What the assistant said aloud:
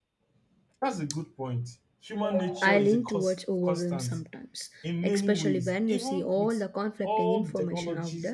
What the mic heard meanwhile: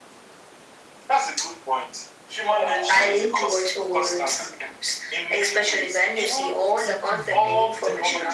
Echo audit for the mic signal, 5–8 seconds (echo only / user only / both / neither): both